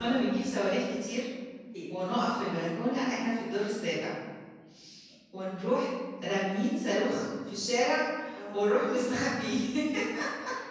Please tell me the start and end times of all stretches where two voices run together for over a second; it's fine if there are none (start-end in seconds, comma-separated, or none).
none